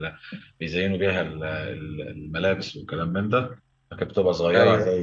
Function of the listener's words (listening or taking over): listening